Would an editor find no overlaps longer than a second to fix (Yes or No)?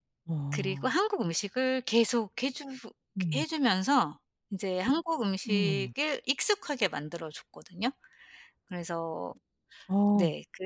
Yes